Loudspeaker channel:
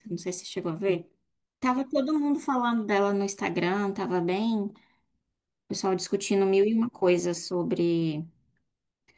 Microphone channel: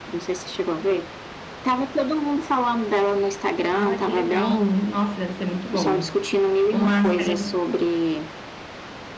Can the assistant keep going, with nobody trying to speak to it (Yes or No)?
No